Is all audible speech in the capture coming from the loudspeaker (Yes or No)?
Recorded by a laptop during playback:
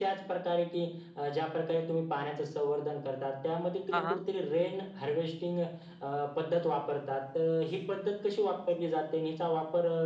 No